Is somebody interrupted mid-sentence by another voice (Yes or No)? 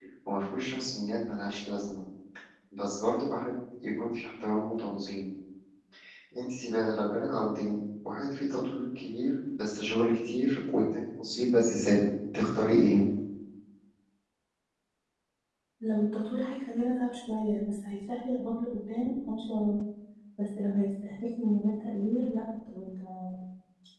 No